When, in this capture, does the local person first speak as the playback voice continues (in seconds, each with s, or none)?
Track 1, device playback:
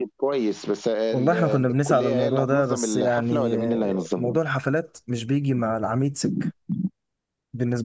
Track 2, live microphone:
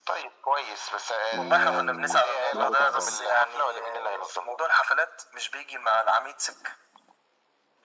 1.3 s